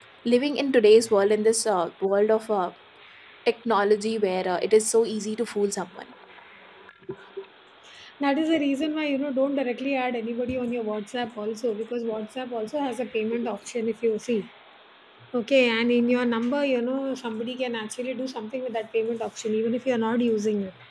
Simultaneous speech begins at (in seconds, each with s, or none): none